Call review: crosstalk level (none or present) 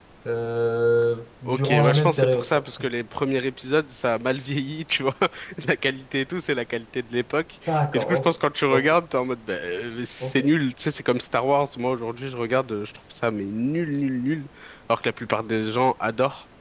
present